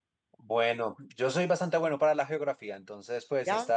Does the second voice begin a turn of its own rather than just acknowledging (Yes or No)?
No